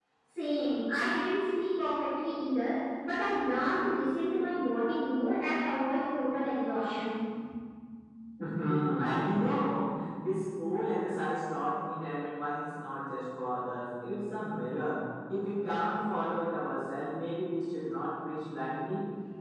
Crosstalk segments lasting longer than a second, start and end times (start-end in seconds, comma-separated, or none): none